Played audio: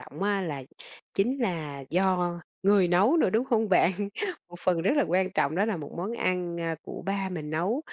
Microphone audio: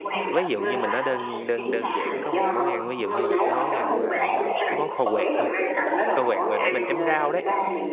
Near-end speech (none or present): present